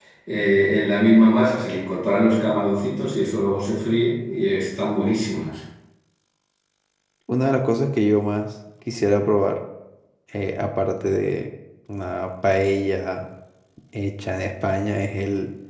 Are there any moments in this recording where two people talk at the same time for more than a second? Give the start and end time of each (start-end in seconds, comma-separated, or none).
none